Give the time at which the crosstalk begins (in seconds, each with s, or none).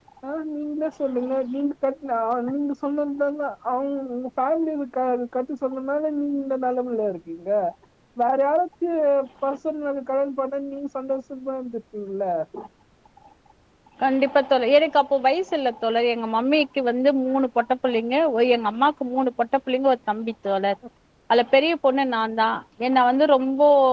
none